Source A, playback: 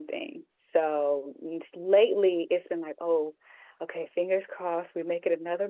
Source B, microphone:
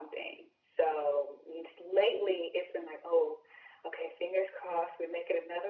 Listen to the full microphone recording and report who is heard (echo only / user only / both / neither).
echo only